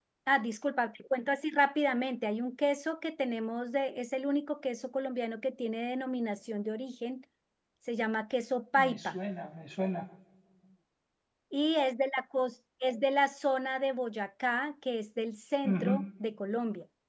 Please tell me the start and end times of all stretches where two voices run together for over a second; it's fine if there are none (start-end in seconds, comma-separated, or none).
none